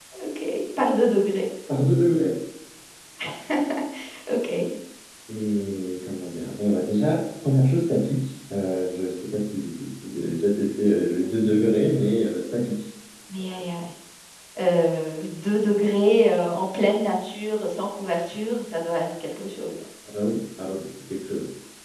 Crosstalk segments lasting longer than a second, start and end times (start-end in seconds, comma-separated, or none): none